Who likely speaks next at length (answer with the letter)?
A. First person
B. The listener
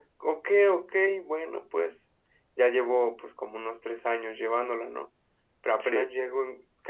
A